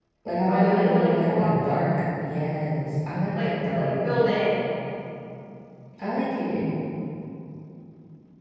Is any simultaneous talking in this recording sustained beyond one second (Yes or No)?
Yes